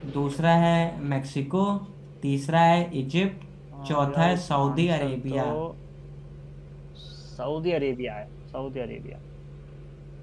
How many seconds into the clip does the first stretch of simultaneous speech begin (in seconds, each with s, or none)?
3.9 s